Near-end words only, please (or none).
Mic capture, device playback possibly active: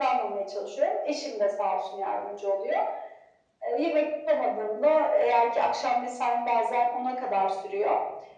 none